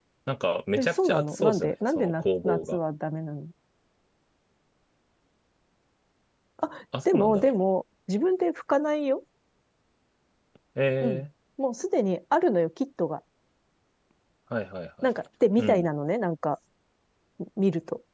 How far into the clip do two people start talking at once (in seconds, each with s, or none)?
0.8 s